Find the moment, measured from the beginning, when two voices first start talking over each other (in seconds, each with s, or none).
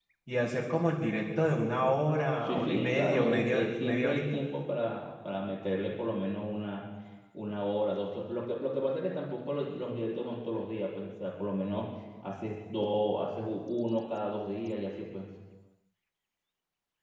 2.4 s